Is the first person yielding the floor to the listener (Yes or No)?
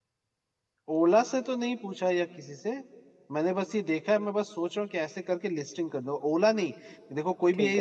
No